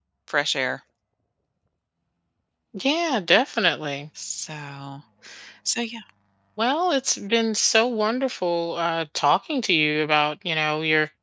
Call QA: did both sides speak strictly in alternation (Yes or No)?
Yes